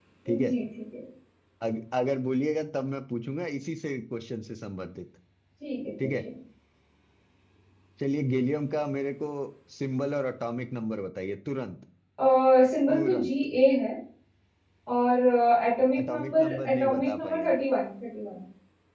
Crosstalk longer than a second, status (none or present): present